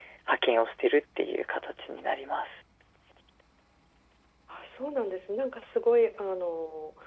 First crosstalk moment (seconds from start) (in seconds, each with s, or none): none